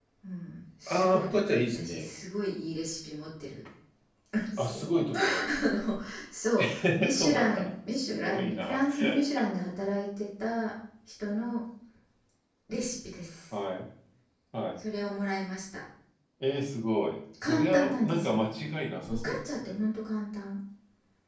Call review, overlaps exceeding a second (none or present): present